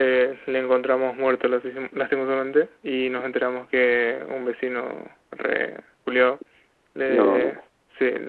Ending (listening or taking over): listening